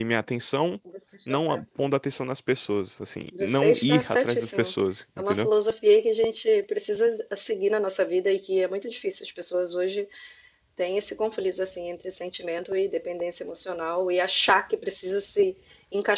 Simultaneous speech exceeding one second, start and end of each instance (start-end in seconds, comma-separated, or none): 3.4-4.7